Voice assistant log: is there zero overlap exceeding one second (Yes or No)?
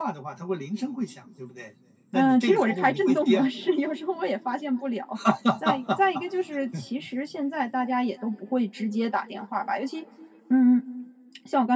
No